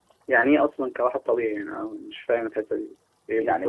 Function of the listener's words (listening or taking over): taking over